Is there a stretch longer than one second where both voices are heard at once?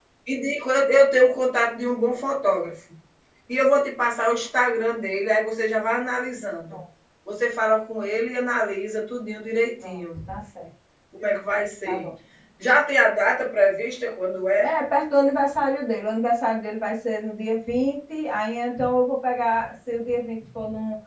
No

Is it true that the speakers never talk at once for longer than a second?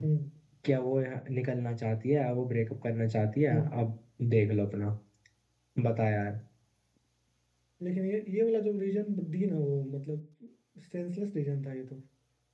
Yes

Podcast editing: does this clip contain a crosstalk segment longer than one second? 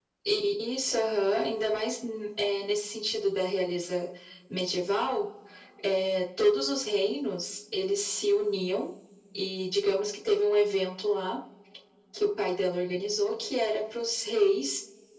No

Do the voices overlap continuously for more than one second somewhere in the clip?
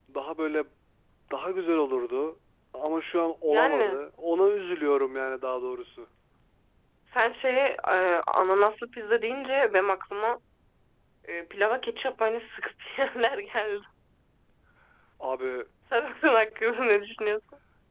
No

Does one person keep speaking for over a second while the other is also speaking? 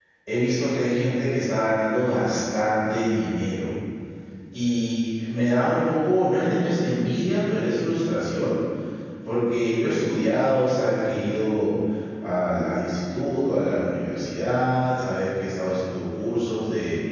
No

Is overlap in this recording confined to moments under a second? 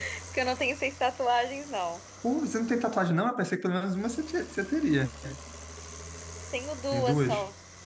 Yes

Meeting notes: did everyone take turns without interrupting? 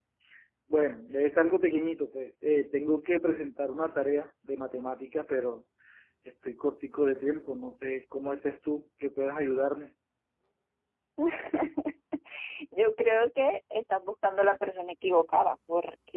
Yes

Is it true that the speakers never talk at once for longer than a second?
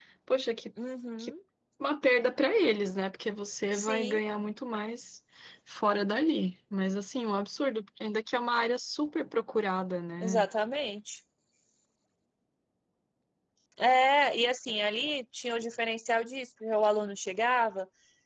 Yes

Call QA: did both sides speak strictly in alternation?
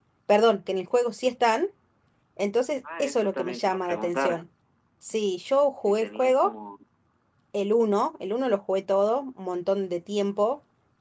No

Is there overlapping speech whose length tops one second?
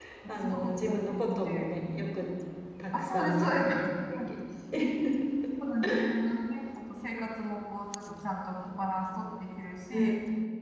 Yes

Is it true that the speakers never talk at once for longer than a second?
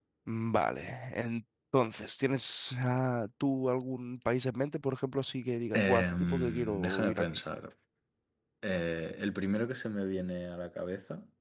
No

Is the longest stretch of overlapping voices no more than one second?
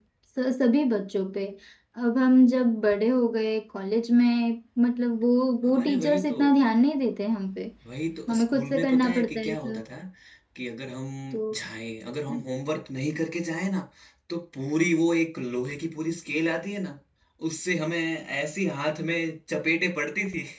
No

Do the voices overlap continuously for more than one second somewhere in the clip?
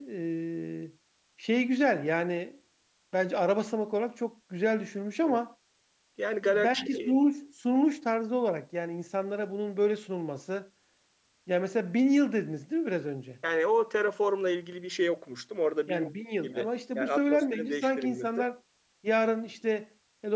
Yes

